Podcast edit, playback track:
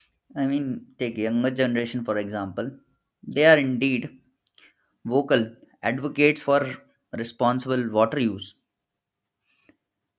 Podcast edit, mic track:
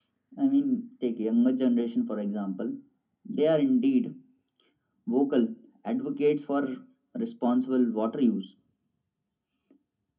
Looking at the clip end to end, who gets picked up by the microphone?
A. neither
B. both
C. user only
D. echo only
D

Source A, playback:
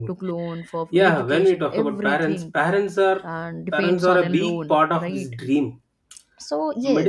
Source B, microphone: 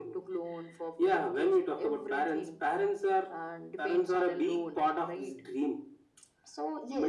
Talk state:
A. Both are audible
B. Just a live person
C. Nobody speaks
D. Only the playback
D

